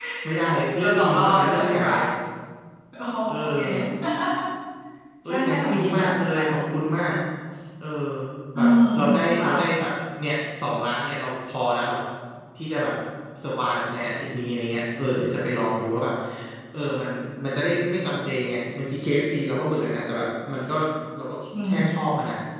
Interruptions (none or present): present